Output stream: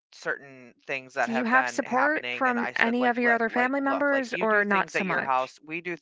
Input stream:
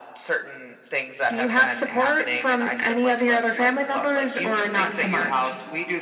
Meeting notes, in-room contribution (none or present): none